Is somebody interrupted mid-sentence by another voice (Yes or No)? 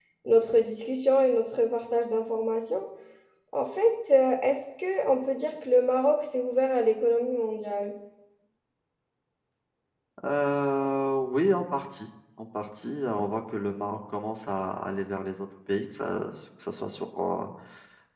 No